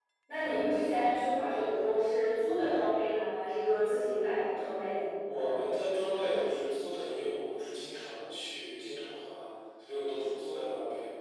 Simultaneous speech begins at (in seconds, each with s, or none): none